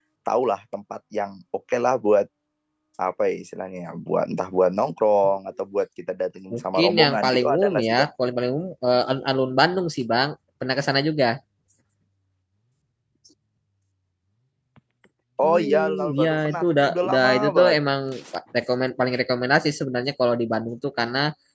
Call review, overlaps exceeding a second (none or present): present